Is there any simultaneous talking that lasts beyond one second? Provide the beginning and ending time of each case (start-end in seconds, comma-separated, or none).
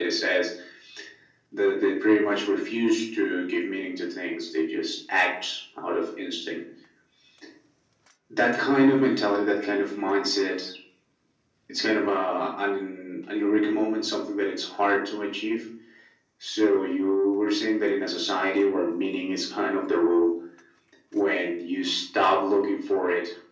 none